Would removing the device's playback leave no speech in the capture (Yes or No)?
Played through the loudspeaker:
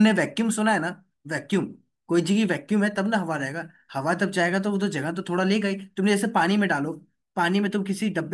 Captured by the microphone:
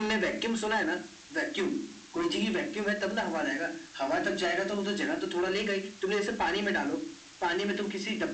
Yes